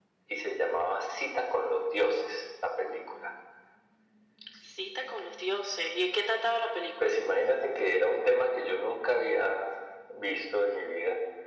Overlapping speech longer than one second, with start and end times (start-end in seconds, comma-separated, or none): none